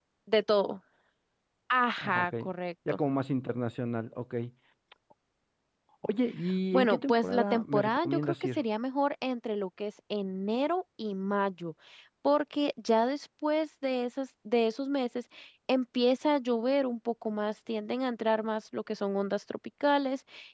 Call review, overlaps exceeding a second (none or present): present